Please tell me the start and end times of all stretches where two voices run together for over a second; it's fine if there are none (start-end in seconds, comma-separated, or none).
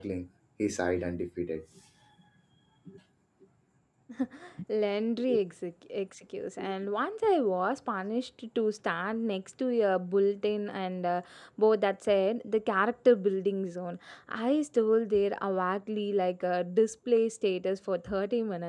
none